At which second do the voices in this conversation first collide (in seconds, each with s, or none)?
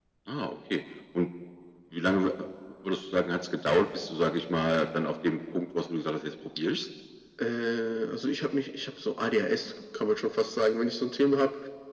none